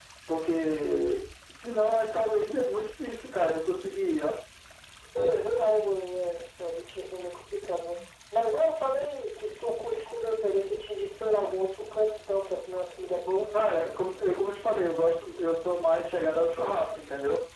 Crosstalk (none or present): none